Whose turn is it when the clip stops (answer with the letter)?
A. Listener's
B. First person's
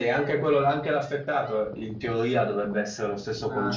B